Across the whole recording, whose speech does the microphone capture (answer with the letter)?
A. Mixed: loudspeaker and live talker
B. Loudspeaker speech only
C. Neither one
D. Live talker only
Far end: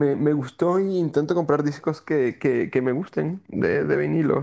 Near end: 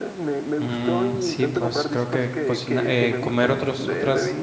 A